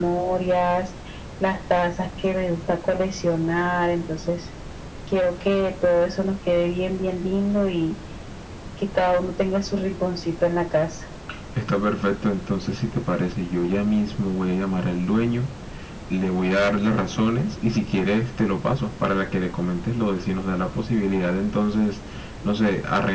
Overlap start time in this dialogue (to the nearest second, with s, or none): none